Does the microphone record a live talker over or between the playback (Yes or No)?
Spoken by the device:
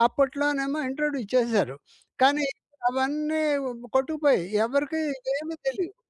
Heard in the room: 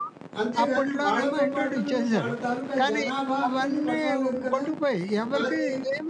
Yes